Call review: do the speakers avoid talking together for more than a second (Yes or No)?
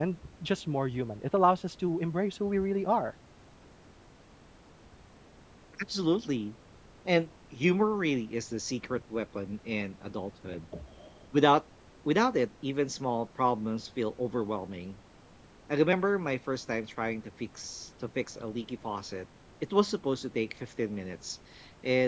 Yes